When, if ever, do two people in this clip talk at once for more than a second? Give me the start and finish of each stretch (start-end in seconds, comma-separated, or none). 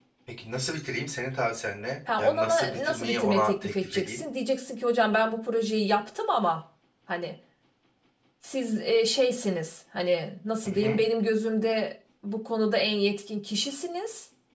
2.2-4.2